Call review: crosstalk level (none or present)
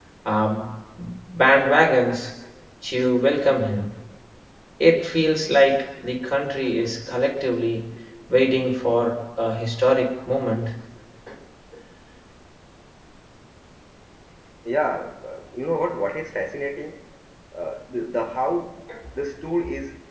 none